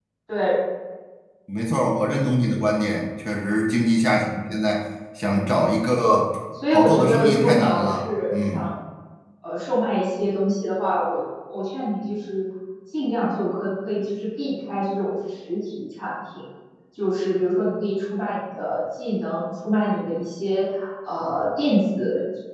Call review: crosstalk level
present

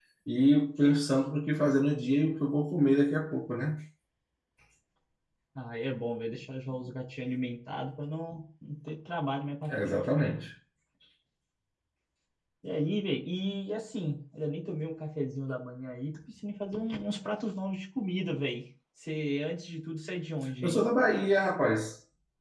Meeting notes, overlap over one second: none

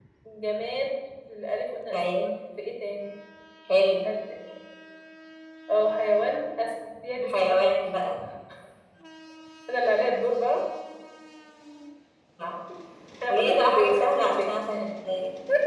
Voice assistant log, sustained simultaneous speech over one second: present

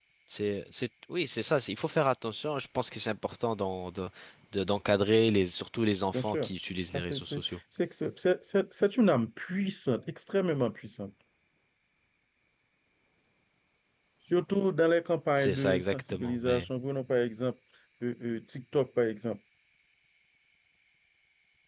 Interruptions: present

